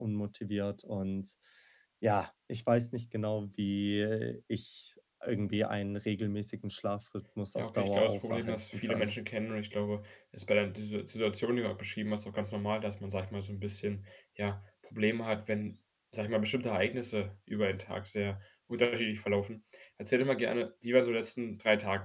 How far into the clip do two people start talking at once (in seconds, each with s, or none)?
7.6 s